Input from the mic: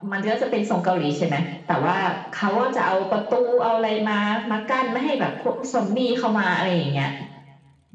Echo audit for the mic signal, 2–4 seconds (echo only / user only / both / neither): echo only